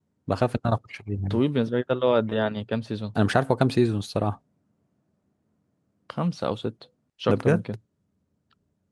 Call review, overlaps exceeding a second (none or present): none